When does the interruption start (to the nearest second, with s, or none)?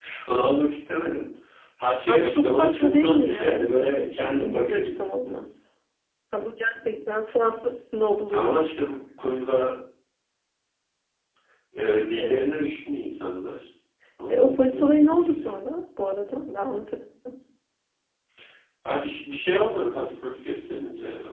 2 s